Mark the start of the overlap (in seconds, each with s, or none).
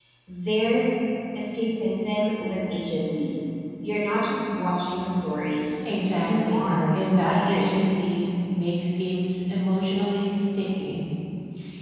6.2 s